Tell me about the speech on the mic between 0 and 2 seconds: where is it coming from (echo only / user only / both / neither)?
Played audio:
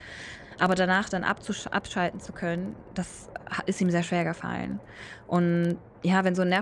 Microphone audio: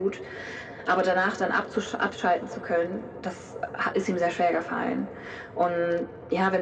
echo only